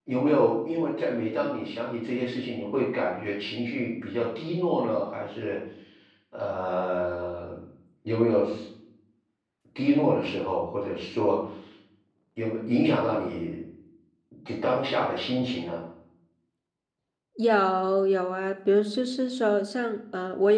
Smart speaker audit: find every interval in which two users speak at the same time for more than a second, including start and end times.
none

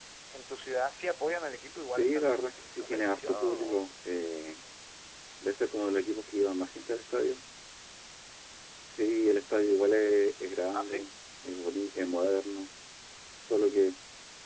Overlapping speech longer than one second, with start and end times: 1.9-3.9

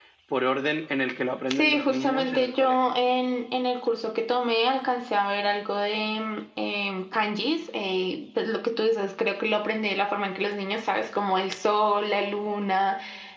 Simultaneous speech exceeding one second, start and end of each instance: 1.5-3.0

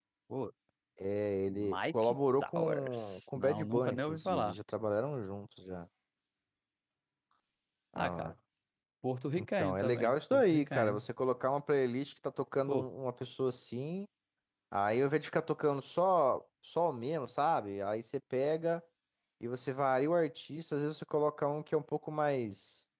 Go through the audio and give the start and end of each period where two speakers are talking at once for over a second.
1.5-4.6, 9.4-11.0

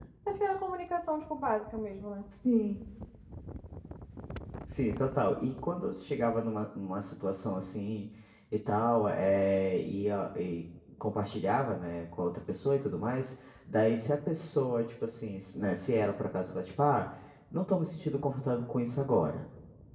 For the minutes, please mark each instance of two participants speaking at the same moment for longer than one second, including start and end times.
none

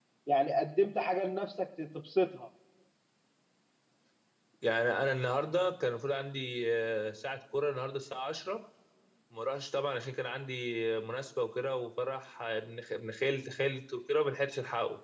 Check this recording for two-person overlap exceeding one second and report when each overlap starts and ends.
none

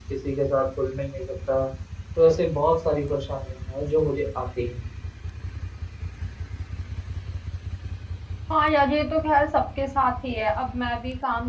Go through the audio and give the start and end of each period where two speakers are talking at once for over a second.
none

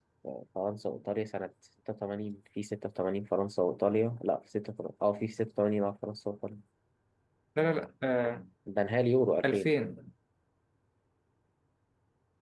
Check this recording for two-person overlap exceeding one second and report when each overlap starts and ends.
none

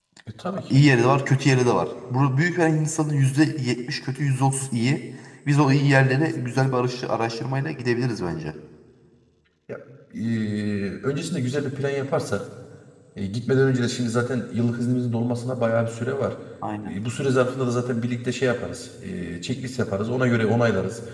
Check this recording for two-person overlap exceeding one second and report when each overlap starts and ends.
none

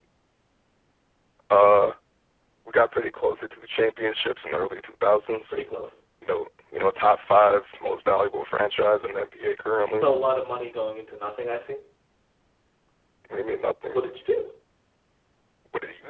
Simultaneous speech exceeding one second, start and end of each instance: none

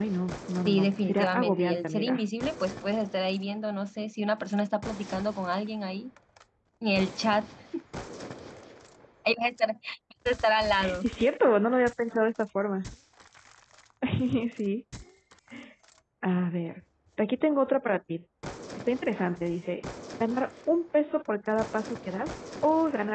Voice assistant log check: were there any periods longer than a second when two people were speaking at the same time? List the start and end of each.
0.6-2.2

